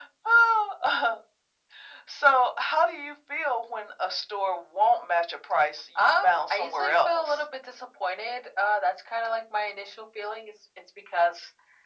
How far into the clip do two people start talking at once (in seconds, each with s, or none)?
6.0 s